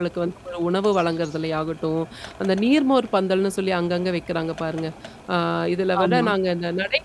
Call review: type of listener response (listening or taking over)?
listening